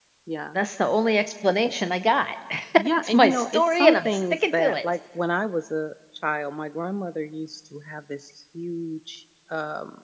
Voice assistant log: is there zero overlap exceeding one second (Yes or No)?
No